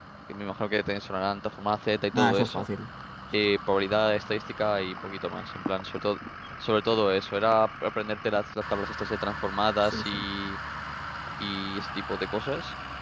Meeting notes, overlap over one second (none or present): none